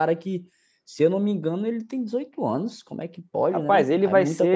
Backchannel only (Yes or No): No